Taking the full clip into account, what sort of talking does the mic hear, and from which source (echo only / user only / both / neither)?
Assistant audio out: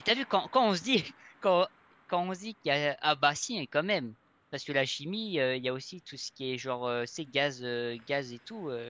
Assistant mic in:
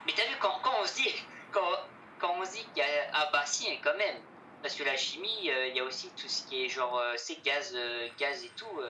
echo only